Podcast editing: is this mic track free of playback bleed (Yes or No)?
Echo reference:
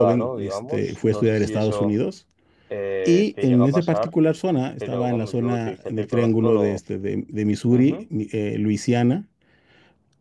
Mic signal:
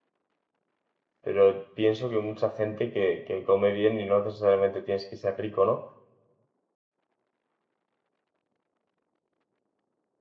Yes